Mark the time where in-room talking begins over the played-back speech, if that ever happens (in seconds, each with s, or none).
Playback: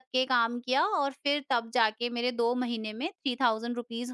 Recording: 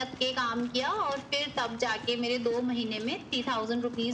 none